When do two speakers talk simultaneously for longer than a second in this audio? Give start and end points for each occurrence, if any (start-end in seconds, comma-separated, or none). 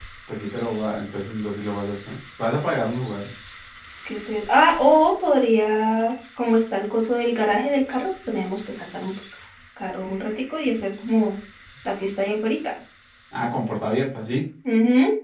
none